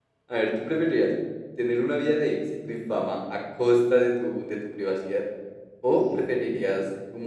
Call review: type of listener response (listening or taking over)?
listening